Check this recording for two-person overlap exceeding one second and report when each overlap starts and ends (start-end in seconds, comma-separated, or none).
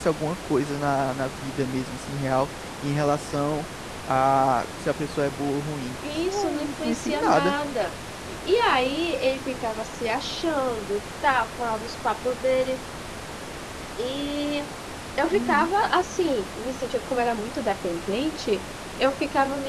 6.2-7.5